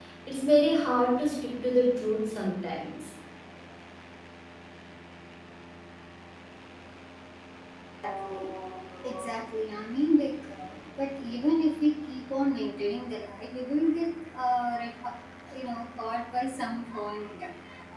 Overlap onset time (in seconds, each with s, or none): none